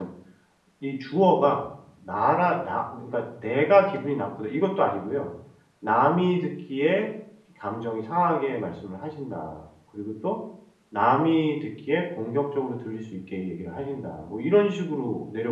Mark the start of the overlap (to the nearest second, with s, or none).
none